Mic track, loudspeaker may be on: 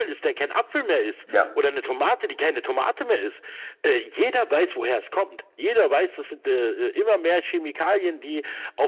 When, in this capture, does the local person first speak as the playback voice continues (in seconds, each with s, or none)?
1.2 s